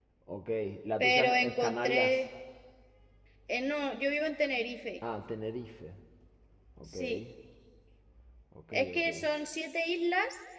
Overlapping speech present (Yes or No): Yes